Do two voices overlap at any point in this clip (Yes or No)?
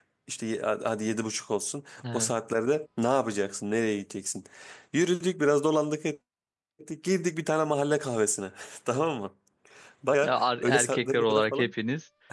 Yes